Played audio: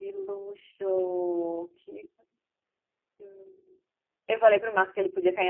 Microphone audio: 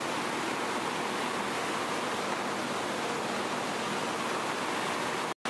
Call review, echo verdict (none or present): none